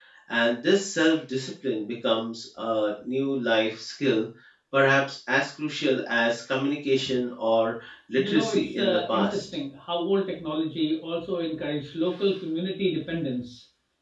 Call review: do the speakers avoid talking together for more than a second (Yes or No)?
No